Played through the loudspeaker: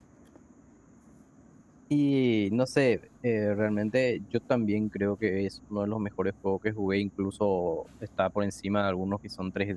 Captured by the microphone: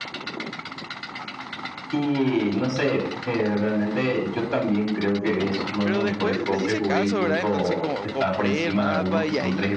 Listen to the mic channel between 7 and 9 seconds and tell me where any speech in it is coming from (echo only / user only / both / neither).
both